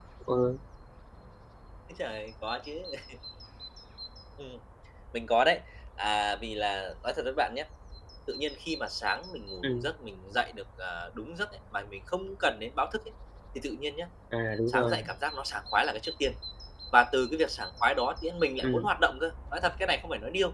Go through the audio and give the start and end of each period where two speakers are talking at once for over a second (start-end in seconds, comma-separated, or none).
none